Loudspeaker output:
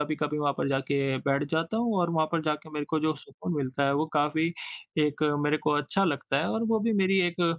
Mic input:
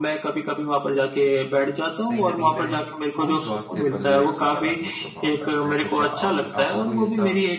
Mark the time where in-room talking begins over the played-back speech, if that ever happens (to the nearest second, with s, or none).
2 s